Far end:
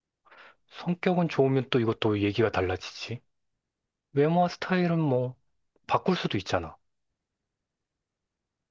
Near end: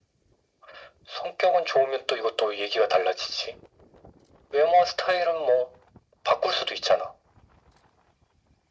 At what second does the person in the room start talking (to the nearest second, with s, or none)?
none